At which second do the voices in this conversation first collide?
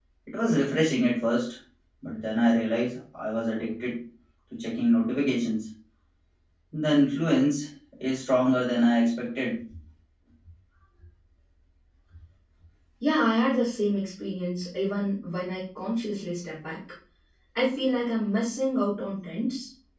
none

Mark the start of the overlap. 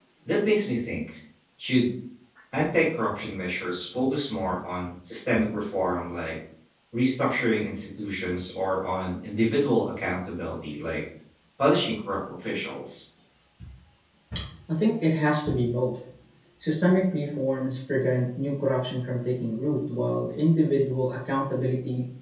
none

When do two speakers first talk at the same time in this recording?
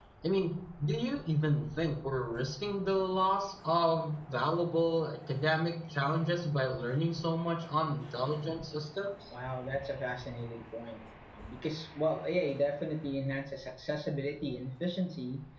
none

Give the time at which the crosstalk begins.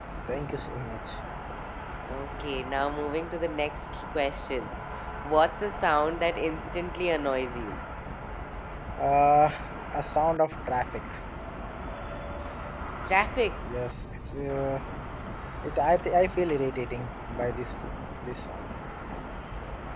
none

